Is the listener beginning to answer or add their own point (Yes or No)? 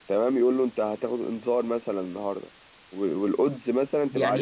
Yes